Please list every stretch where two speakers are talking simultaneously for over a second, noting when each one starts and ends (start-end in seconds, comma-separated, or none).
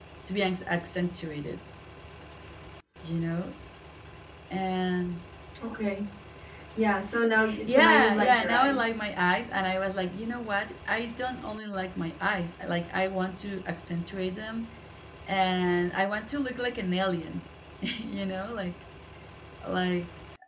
7.7-8.9